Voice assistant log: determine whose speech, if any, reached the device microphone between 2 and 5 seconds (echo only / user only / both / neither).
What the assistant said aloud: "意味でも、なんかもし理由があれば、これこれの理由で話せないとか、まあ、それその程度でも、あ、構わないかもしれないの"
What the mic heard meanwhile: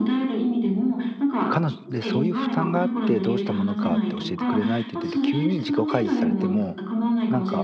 both